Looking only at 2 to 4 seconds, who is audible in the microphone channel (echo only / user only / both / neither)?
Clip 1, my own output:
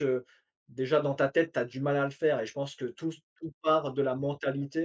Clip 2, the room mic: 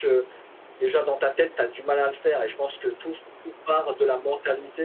echo only